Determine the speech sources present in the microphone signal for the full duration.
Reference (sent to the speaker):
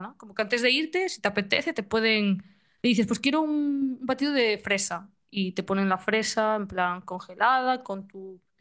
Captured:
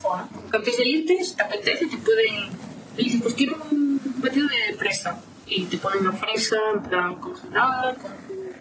echo only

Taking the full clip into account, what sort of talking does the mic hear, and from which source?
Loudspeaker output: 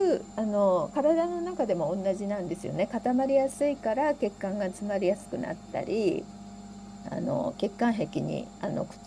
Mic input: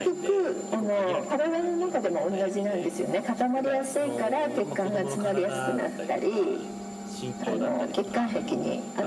both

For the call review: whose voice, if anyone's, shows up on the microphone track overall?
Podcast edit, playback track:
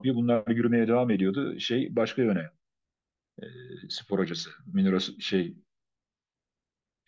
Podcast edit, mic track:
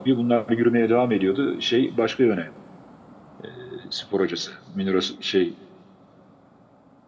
echo only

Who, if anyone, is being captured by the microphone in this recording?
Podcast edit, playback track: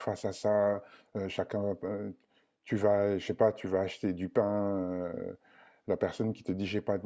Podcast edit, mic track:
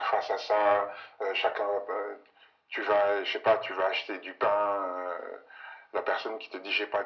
echo only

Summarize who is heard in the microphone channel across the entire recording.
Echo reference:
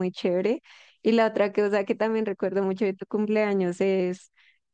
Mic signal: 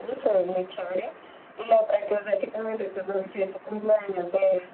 echo only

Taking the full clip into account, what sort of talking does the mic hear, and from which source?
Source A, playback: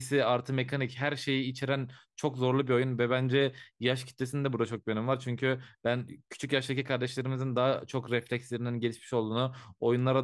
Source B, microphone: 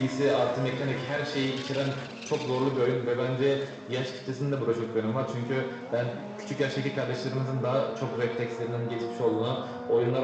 echo only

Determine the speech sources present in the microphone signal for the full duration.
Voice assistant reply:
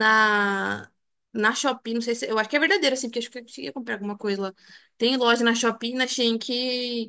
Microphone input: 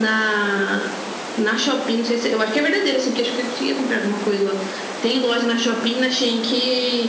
echo only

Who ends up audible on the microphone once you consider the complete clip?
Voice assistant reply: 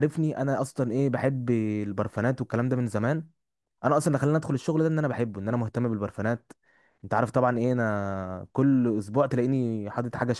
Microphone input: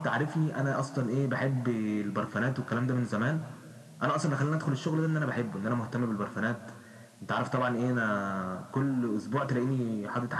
echo only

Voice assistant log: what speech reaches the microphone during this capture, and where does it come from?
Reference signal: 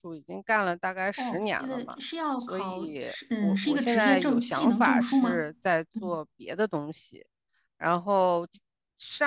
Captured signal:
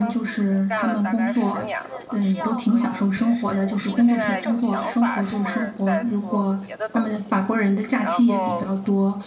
both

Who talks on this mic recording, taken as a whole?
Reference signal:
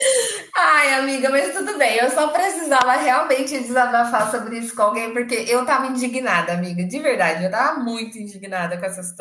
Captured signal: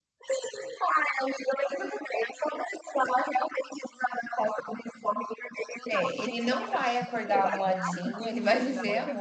both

